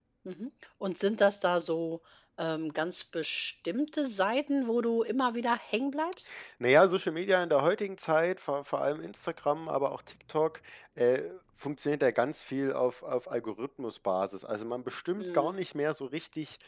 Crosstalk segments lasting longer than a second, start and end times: none

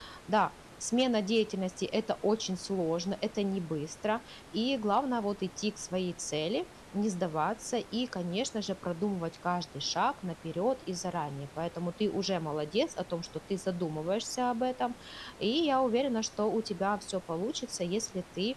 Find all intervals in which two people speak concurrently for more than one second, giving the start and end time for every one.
none

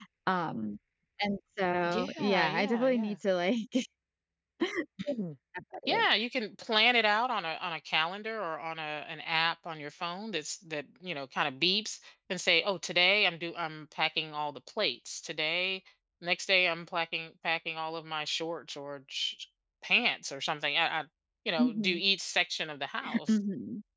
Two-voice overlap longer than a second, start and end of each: 1.9-3.2

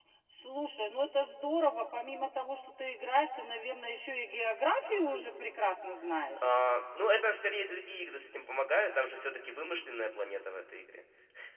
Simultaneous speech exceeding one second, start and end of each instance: none

